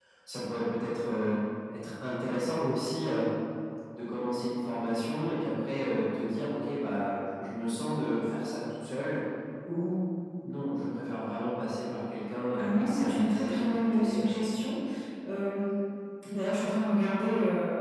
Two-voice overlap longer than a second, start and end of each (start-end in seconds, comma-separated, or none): 12.6-14.4